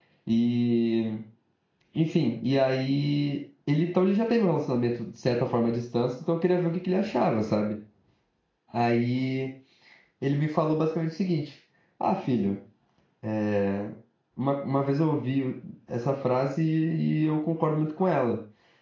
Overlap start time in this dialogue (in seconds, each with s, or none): none